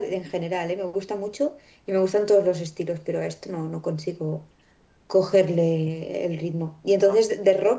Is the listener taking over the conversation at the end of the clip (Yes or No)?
No